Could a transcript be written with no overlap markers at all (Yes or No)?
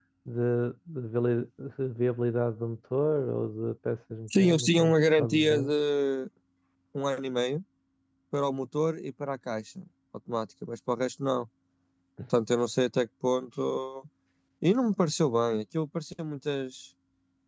No